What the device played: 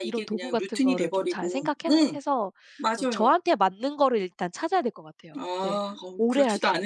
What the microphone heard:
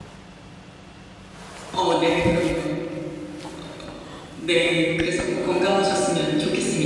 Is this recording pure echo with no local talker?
No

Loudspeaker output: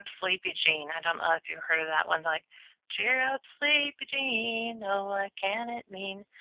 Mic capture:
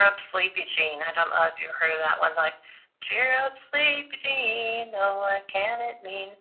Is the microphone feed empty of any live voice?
Yes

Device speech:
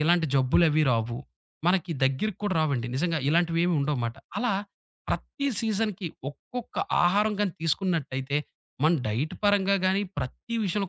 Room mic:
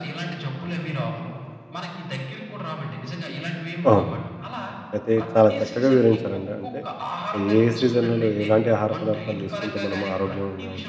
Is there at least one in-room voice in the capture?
Yes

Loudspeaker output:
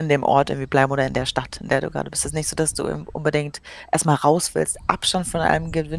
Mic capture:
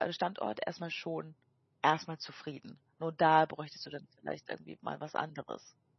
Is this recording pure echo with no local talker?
No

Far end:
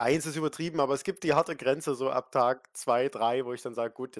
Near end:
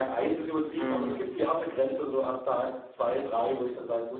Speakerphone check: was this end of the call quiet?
No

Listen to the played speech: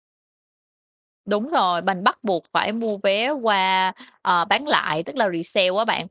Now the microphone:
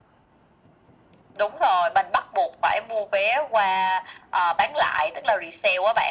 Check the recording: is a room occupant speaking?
No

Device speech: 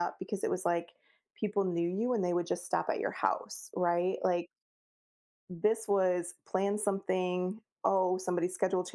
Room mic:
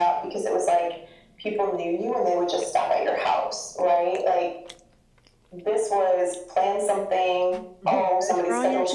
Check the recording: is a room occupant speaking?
Yes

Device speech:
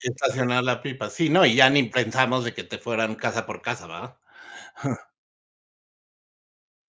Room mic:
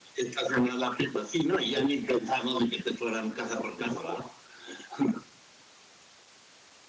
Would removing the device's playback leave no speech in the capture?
Yes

